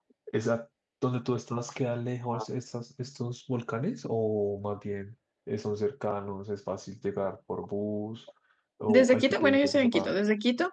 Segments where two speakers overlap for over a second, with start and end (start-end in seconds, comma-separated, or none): 8.9-10.1